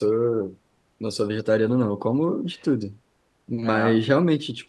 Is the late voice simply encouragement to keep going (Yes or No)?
Yes